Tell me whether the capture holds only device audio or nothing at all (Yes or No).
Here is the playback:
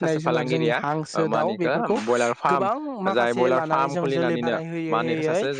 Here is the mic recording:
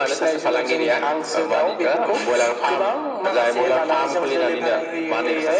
Yes